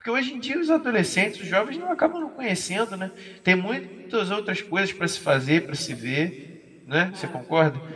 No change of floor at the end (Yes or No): No